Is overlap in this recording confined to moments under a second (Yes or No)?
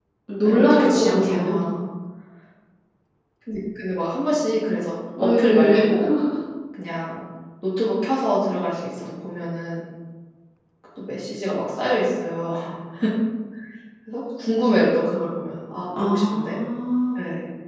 No